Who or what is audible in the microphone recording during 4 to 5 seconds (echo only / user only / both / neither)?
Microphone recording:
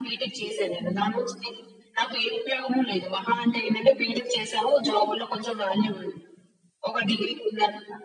echo only